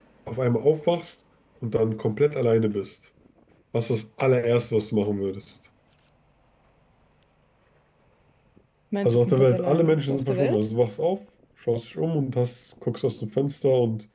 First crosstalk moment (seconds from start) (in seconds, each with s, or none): 9.0 s